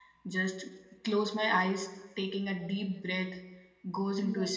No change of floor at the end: Yes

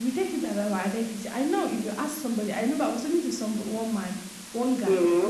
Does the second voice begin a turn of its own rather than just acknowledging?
No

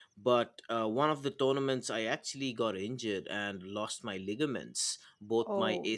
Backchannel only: Yes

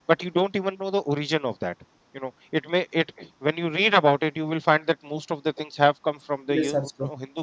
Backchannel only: Yes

